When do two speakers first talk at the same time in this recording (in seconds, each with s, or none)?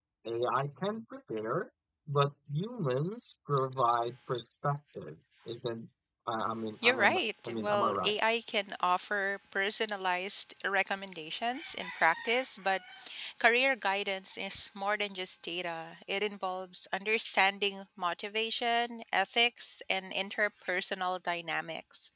6.8 s